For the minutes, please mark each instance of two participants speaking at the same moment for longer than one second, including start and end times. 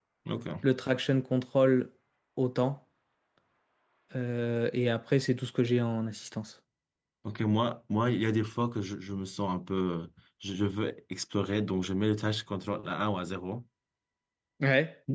none

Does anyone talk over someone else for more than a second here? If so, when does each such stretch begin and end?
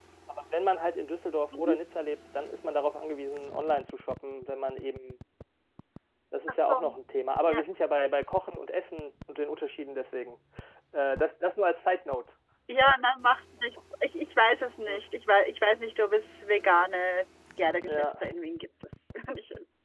none

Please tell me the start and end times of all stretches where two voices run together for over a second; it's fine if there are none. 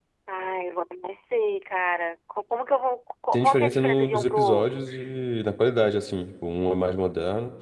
3.3-4.8

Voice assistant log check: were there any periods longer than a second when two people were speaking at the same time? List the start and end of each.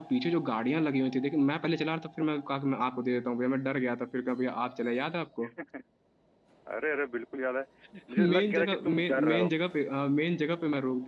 8.2-9.5

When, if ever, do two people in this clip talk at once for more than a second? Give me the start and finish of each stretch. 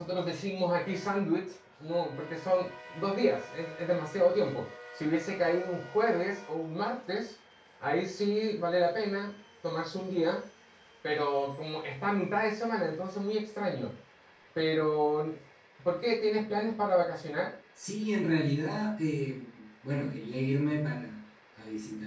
none

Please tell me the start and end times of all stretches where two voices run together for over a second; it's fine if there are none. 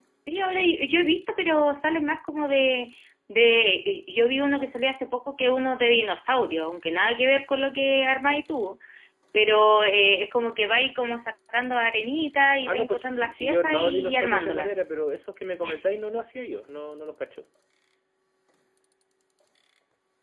12.6-14.7

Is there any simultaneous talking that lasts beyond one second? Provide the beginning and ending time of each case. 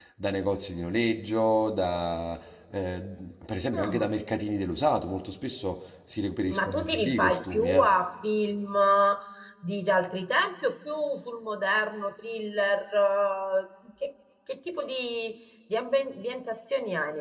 6.5-7.9

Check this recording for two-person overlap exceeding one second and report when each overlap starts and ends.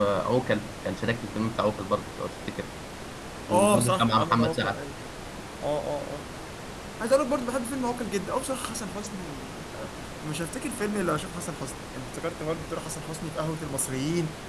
3.5-4.8

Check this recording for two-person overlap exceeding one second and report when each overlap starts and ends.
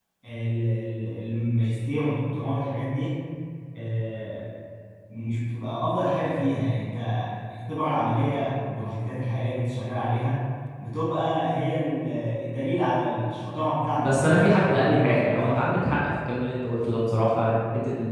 14.0-15.7

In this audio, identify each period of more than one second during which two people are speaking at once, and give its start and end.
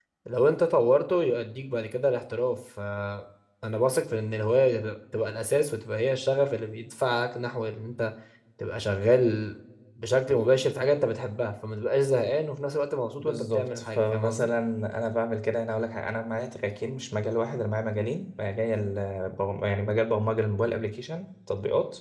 13.2-14.5

